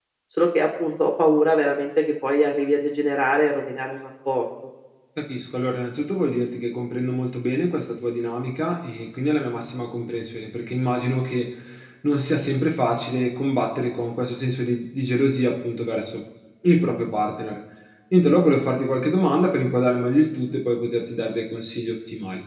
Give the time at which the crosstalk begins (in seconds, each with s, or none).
none